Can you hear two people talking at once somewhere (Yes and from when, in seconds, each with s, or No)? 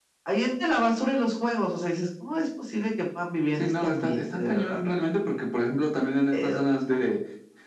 Yes, from 3.6 s